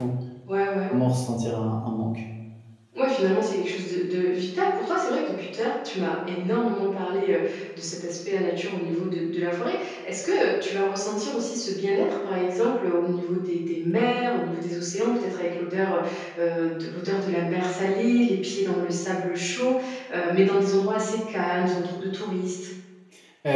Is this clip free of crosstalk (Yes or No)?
Yes